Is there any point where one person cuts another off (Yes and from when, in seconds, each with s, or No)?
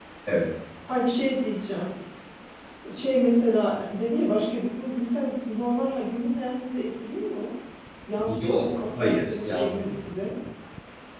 Yes, from 8.3 s